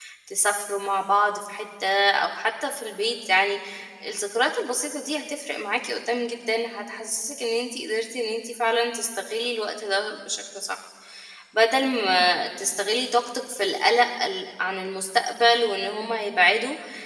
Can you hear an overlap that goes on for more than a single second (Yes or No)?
No